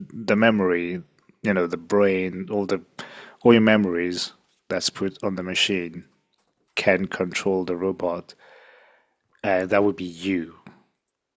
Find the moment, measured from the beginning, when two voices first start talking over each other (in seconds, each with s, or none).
none